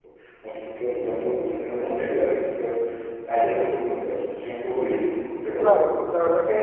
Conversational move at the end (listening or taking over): taking over